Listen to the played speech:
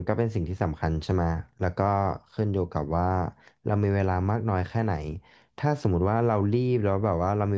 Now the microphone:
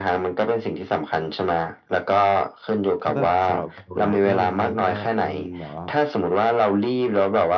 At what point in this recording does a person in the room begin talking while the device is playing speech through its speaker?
2.9 s

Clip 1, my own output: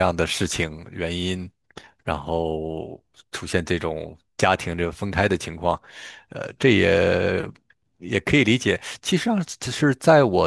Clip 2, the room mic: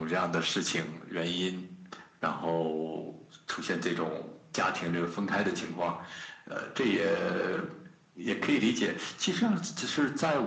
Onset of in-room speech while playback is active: none

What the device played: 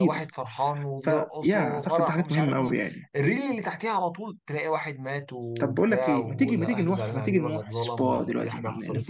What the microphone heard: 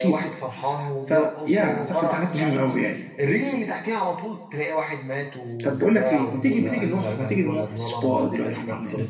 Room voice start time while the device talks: none

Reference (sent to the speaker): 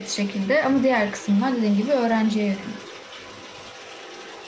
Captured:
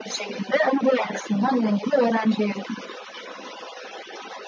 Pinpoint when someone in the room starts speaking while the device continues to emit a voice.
none

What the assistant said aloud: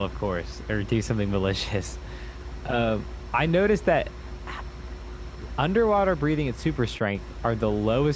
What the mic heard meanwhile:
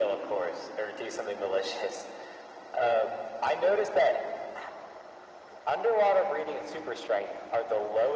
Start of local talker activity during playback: none

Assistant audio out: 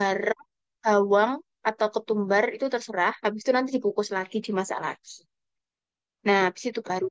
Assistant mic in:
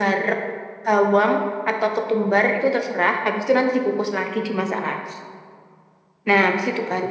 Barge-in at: none

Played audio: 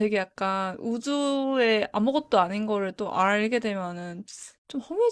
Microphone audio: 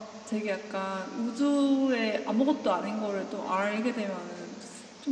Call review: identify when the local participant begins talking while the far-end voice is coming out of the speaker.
none

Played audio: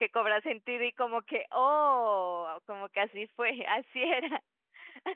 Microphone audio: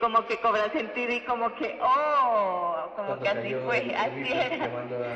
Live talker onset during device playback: 3.0 s

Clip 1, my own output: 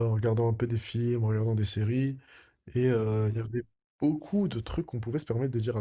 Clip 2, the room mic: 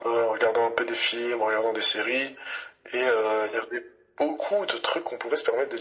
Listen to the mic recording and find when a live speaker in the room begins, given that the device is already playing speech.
none

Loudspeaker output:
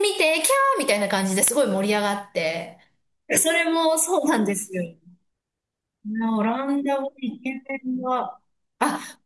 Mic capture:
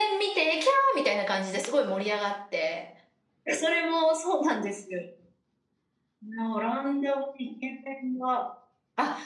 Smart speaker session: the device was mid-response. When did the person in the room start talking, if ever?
none

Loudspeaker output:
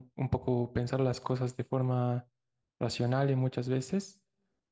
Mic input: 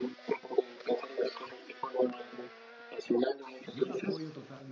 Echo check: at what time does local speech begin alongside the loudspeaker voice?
3.7 s

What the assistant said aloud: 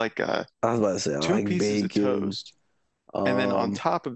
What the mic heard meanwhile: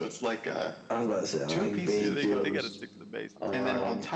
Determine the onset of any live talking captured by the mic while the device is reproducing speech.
2.0 s

